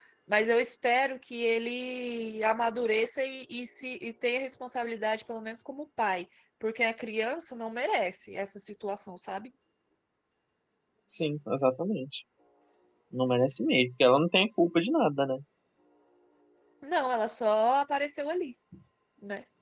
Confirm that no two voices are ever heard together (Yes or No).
Yes